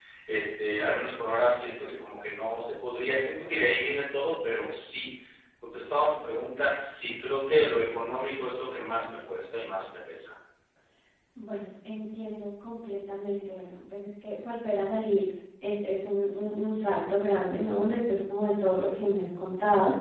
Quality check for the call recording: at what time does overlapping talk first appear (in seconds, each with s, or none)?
none